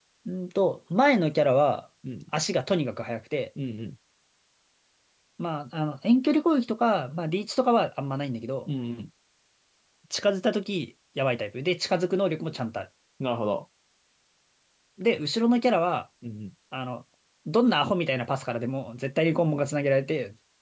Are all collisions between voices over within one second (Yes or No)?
Yes